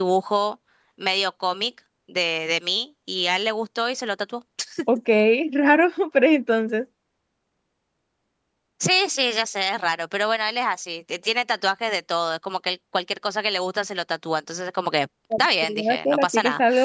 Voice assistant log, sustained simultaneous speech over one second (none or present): present